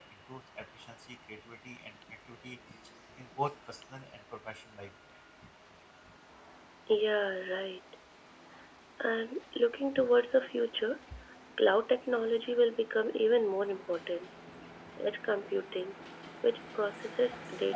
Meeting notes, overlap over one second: none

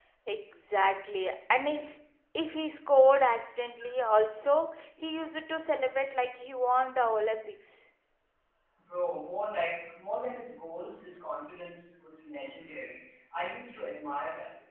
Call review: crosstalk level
none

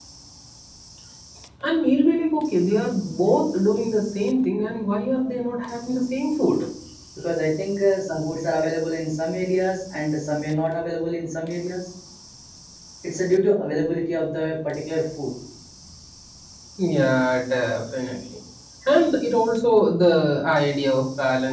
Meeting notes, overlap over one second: none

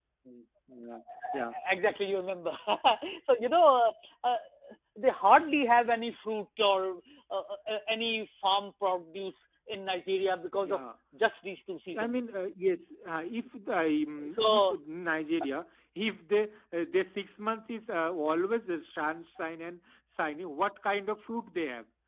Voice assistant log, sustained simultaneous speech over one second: none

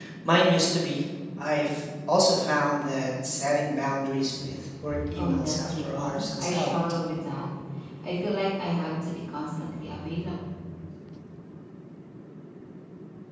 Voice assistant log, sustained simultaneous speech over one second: present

